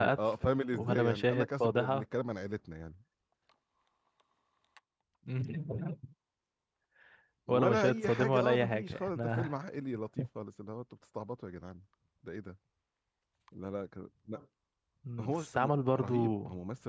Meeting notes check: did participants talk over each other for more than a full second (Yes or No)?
Yes